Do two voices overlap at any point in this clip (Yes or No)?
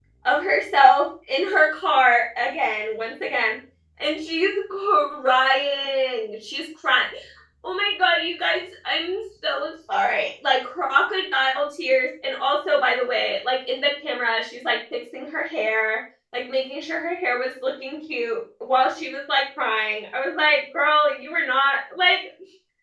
No